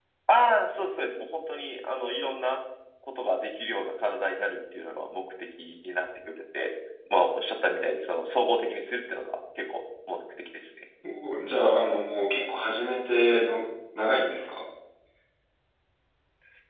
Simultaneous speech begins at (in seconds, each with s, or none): none